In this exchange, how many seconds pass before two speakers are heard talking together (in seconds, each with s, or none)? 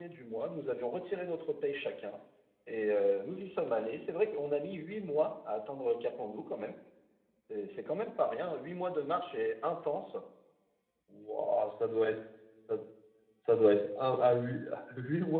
none